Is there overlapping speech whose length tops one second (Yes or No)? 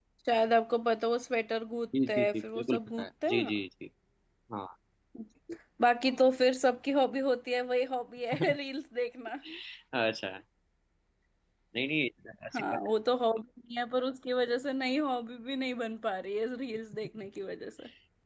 Yes